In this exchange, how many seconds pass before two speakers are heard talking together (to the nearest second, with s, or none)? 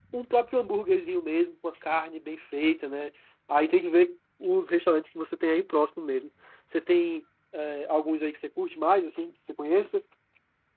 none